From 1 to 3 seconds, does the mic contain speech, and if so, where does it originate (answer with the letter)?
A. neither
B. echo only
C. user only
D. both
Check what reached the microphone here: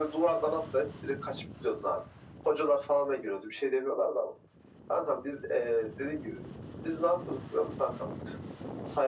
B